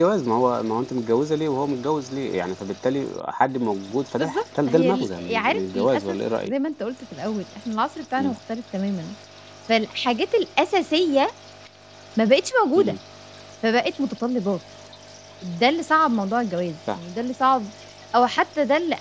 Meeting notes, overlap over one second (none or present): present